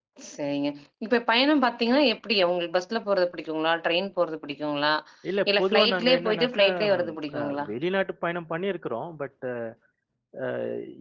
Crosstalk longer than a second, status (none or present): present